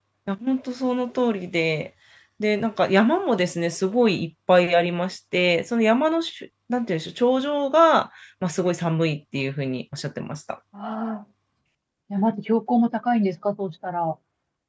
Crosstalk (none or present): none